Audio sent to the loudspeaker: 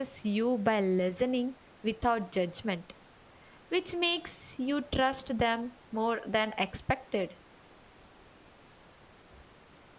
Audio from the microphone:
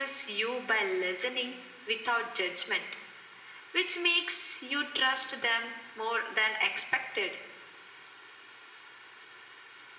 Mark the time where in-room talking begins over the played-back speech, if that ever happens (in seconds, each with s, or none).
none